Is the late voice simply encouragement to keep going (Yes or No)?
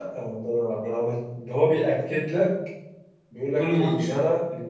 Yes